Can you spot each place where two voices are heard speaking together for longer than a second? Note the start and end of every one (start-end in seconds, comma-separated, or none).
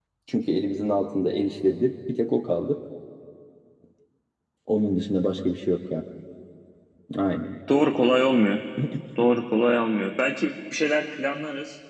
none